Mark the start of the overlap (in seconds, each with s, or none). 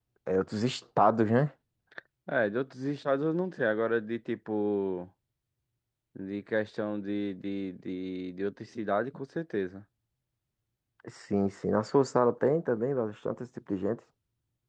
none